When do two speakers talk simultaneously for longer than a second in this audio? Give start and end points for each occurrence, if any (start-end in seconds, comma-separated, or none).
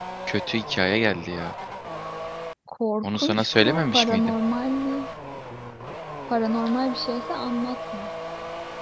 3.0-4.3